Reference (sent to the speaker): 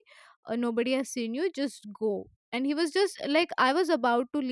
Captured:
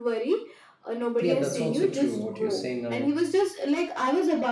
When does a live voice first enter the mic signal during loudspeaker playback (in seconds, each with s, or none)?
1.2 s